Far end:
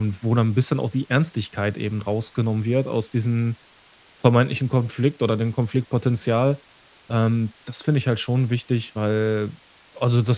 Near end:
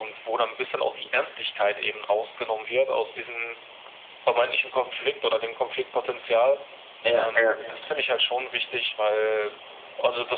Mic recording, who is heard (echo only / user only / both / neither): both